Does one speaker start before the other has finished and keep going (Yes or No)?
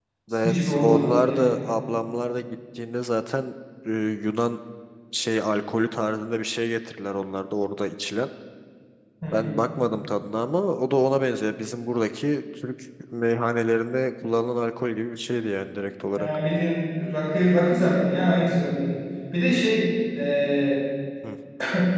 Yes